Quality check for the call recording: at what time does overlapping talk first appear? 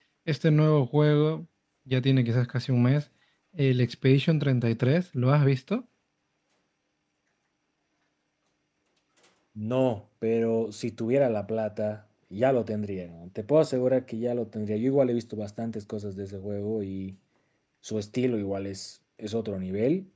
none

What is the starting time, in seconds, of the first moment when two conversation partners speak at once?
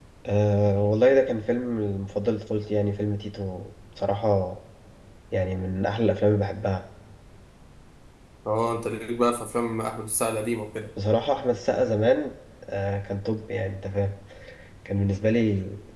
none

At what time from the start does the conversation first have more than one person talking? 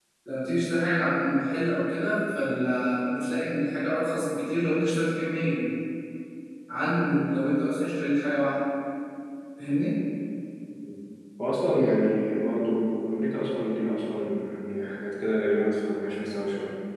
none

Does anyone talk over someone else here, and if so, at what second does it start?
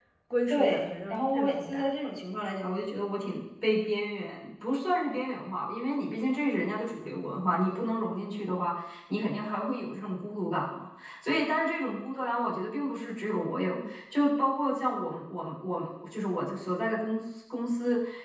1 s

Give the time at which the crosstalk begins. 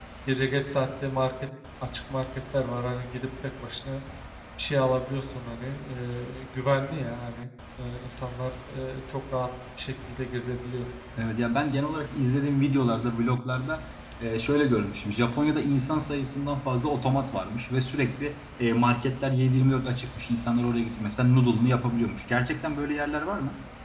none

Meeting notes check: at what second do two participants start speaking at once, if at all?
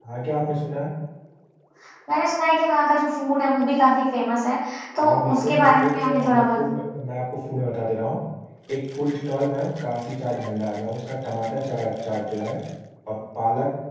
5 s

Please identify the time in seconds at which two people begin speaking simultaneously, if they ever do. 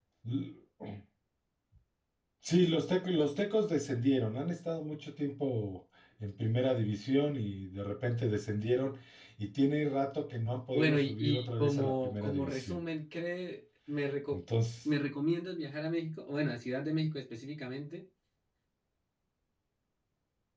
11 s

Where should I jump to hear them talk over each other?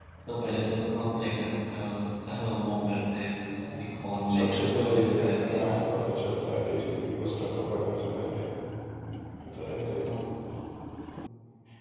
4 s

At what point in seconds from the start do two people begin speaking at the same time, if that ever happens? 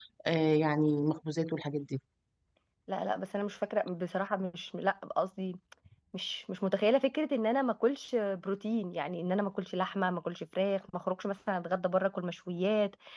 none

